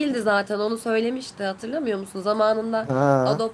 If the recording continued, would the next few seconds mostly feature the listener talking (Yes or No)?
No